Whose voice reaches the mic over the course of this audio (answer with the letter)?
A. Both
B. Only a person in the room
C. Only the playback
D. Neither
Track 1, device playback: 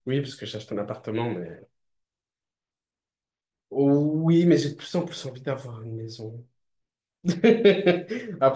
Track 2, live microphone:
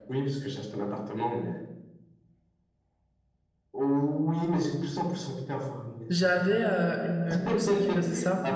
A